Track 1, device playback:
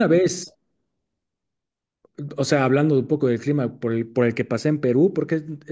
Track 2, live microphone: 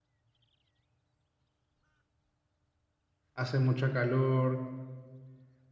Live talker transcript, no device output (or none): hace mucho calor,